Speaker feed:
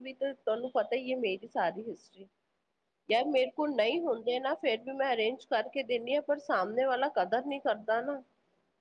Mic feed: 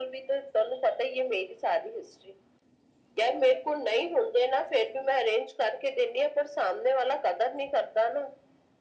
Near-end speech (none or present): none